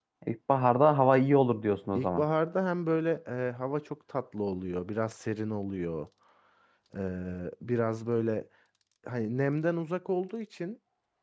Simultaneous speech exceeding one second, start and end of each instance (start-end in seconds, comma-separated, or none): none